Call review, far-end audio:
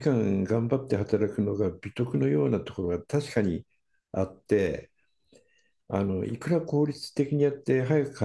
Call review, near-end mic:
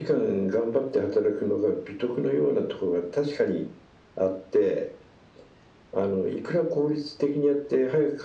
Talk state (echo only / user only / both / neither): echo only